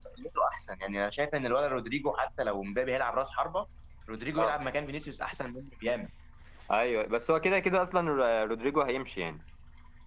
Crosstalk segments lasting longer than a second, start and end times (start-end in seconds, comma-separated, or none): none